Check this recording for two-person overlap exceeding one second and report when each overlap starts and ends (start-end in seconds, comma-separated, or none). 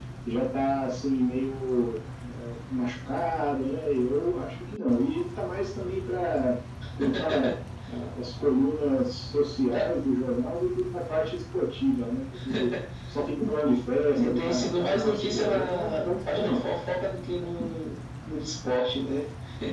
14.1-16.6